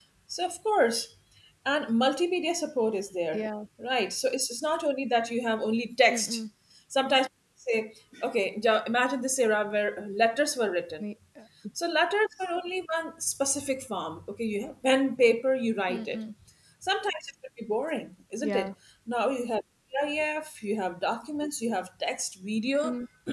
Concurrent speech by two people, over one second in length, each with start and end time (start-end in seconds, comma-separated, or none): none